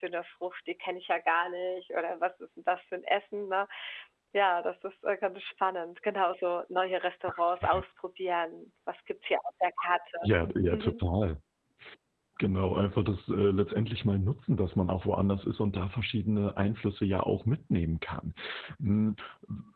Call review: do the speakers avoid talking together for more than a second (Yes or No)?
Yes